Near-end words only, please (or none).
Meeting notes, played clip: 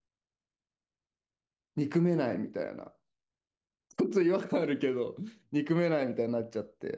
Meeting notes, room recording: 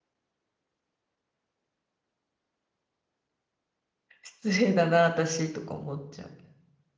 失礼だな、私とか思っちゃう。